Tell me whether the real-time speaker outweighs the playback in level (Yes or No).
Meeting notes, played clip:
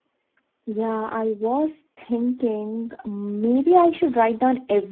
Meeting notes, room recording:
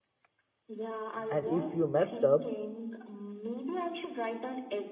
Yes